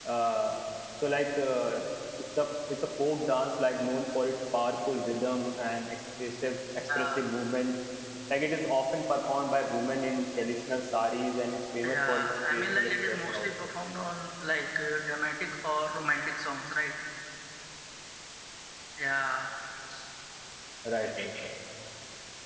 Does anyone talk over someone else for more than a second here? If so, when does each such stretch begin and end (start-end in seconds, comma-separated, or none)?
11.8-13.5